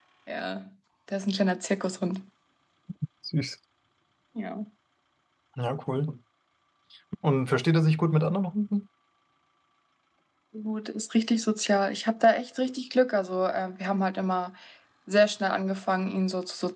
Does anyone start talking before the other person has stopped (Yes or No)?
No